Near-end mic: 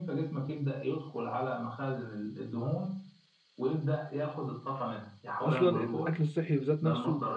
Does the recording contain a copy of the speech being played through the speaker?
Yes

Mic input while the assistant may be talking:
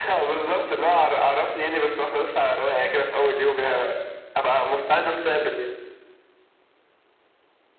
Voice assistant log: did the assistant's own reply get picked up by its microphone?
Yes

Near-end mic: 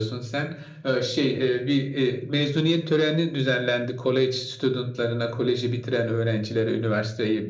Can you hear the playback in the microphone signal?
Yes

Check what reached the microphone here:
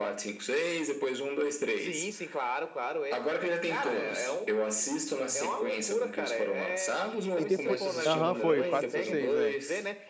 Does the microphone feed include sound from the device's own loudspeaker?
Yes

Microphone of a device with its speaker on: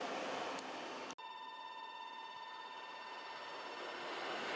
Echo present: No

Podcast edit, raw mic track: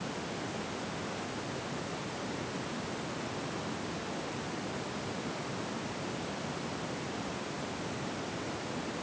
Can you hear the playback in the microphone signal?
No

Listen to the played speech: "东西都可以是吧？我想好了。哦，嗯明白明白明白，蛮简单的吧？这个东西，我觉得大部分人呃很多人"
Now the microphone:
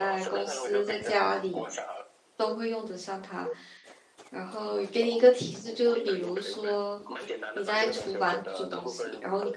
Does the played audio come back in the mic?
Yes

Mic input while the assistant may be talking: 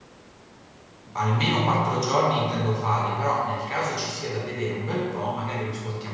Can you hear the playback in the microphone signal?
No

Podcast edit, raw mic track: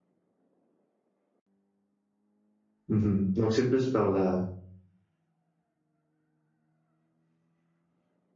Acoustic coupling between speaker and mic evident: No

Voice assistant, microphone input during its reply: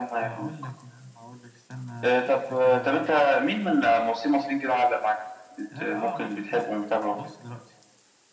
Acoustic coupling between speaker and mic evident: Yes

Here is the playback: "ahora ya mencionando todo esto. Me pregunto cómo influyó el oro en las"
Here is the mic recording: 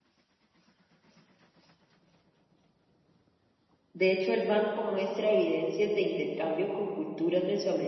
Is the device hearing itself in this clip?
No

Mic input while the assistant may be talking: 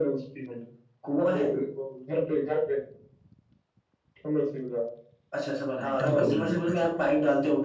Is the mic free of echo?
No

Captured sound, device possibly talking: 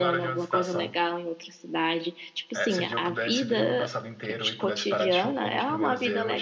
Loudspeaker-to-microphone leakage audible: Yes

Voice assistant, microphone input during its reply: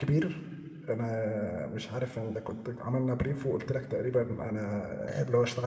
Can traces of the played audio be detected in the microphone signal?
No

